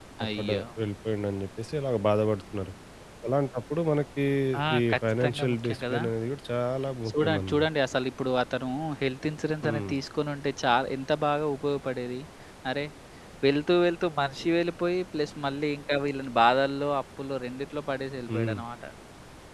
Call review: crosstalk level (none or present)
present